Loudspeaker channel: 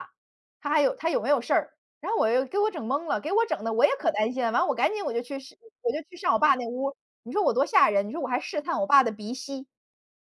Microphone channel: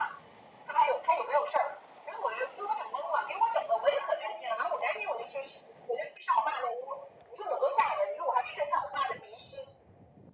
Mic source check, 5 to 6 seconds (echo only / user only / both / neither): echo only